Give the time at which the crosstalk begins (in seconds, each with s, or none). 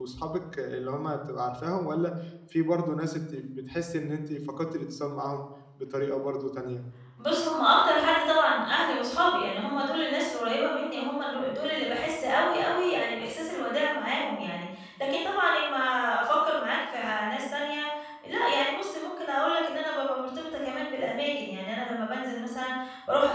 none